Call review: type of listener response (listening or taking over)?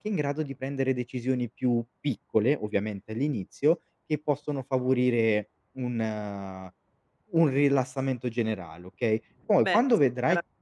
taking over